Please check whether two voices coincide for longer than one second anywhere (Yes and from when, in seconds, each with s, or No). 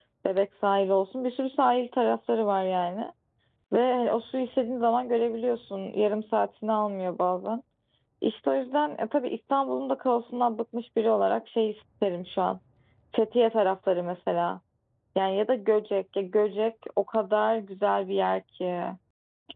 No